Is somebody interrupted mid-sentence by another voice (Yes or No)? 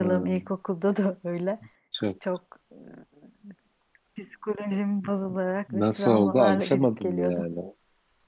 Yes